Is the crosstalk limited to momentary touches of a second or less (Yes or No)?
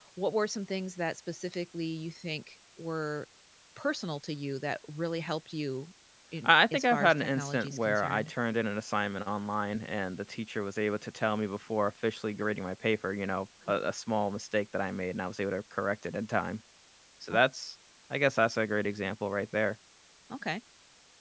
No